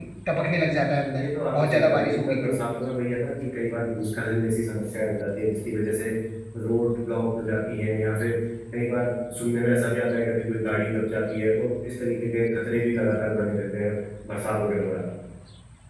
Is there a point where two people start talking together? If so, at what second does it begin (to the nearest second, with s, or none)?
1 s